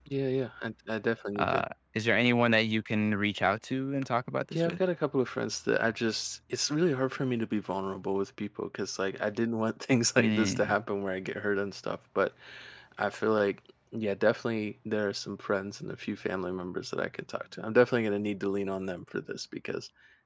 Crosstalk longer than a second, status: none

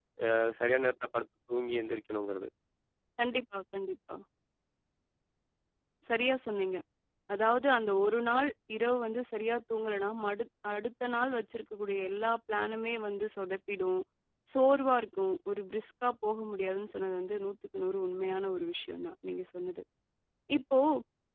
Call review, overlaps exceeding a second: none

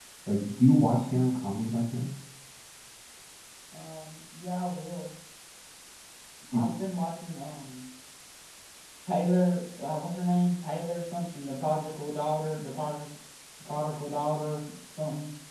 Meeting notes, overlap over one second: none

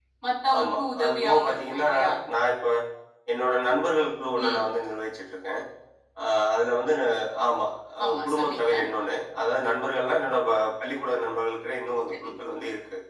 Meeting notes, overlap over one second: present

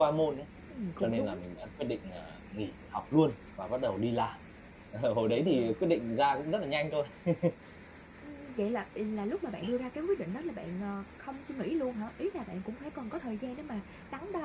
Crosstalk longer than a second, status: none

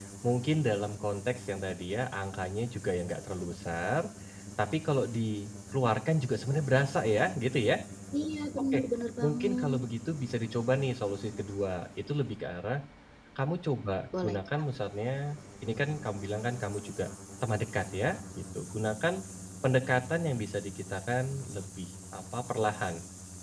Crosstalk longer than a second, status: none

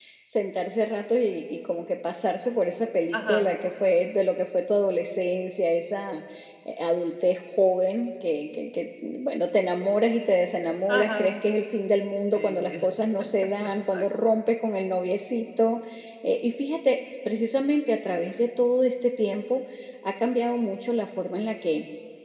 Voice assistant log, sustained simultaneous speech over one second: none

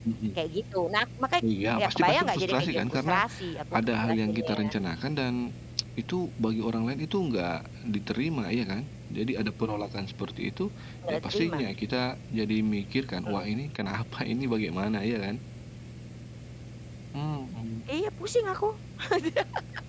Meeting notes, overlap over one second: present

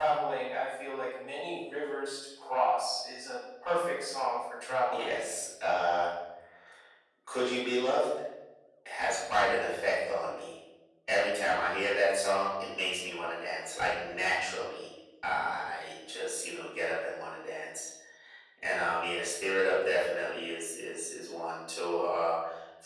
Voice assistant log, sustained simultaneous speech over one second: none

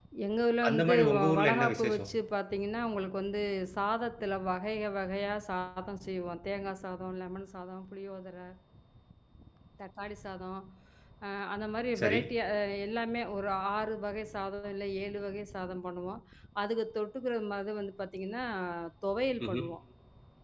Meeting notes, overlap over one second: present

